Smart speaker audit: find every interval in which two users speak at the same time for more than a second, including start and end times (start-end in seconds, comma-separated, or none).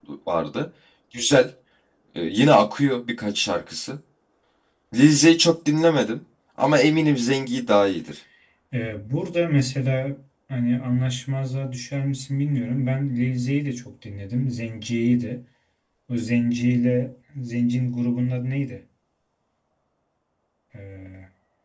none